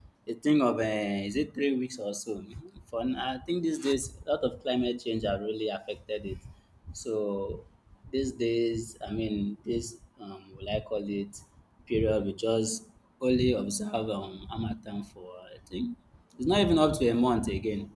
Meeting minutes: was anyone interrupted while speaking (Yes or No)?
No